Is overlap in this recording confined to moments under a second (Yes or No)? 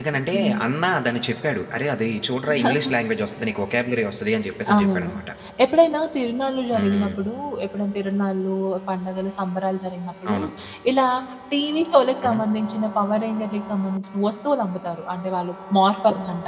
Yes